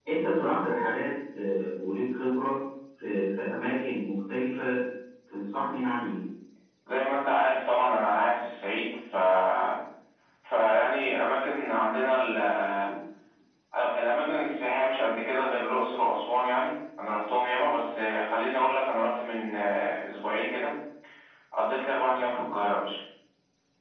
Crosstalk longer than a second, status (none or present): none